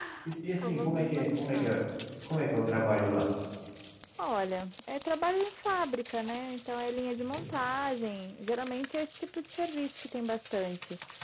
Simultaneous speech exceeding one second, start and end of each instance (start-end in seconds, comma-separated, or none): 0.6-1.8